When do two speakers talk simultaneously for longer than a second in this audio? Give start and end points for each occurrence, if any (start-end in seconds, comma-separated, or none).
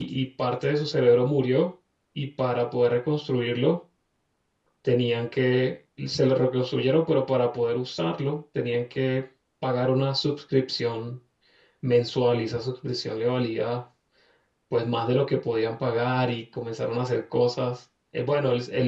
none